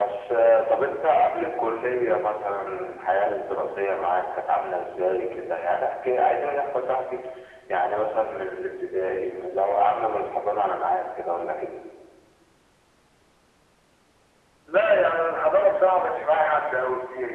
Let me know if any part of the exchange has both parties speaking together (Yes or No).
No